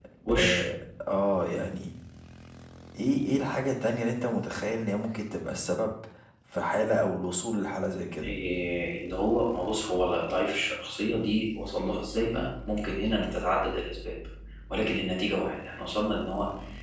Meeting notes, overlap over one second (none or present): none